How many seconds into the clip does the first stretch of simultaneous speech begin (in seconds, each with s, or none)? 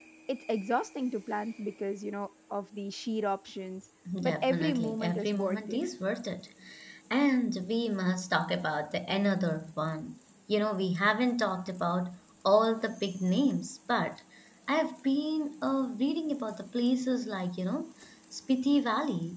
4.1 s